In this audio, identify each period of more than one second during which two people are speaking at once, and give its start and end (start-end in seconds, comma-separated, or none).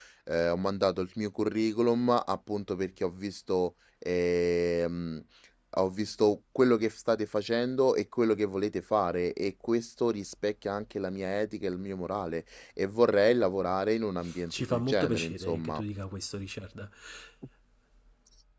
14.5-15.8